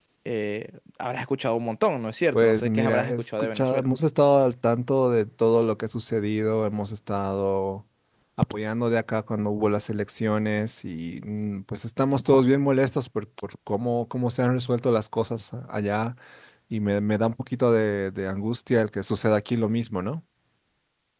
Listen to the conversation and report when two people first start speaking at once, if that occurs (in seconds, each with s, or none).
2.3 s